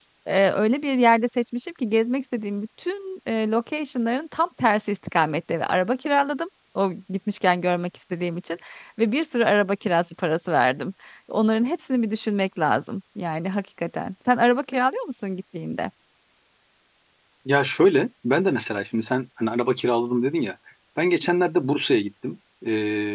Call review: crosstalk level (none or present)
none